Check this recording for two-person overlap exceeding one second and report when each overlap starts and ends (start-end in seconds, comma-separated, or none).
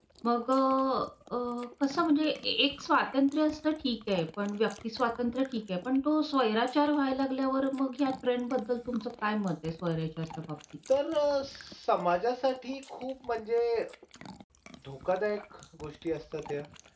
none